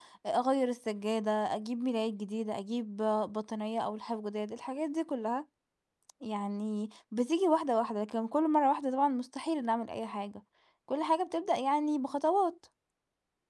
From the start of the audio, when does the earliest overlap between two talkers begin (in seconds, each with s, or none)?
none